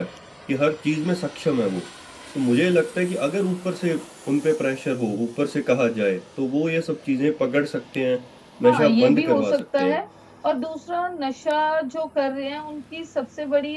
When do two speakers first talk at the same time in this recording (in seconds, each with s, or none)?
8.6 s